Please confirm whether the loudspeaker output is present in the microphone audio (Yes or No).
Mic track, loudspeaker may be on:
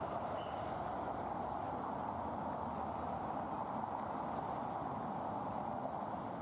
No